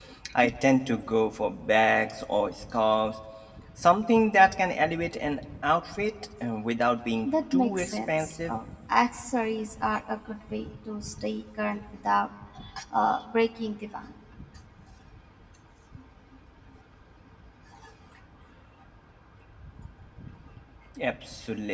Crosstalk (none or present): present